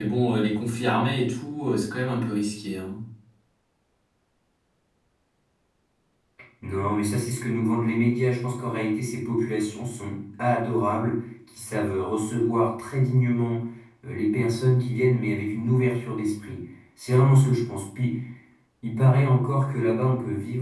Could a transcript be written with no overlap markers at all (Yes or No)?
Yes